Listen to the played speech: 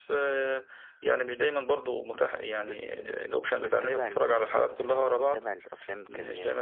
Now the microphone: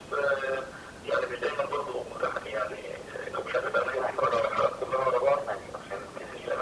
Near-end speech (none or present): none